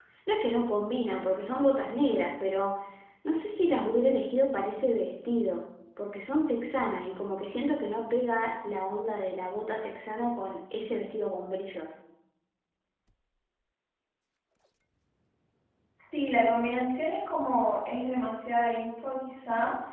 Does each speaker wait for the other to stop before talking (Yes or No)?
Yes